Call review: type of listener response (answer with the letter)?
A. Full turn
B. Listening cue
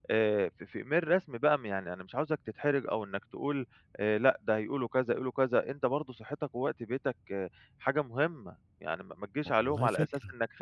B